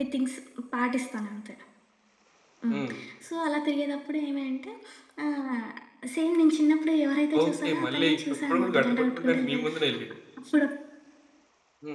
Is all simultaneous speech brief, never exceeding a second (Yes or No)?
No